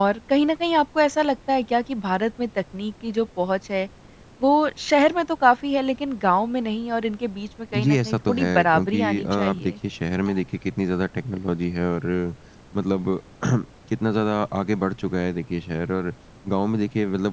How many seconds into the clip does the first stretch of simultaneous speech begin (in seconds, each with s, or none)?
7.7 s